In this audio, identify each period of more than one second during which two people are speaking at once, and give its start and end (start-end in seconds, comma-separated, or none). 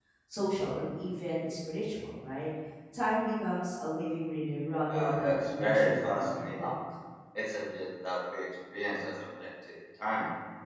4.9-6.5